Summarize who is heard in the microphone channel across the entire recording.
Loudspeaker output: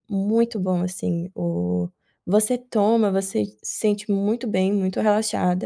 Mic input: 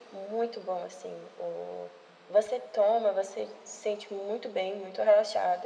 echo only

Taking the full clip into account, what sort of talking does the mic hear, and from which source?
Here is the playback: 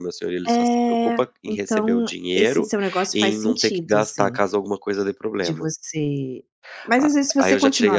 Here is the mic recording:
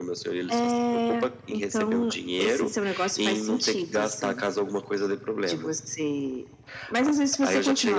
echo only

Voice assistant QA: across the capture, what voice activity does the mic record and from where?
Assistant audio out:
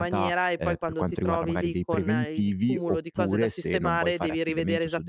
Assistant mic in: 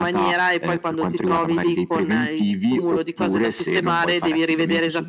echo only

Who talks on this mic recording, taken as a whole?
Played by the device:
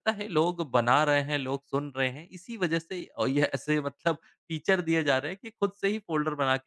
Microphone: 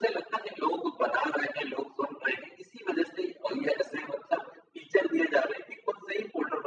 echo only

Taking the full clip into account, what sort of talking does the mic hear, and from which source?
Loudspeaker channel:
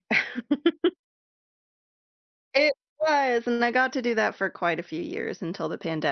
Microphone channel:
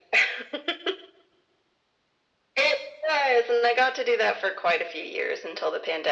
echo only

